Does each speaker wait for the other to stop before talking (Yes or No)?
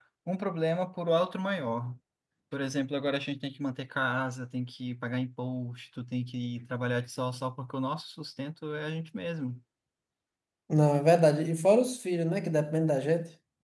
Yes